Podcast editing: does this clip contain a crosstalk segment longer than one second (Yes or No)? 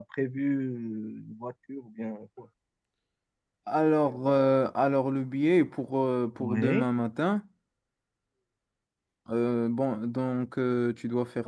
No